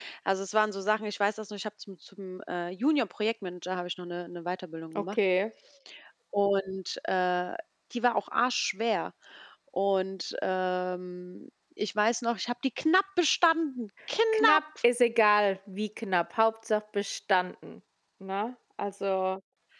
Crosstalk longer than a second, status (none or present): none